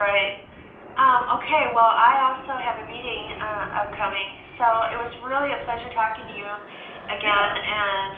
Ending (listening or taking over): listening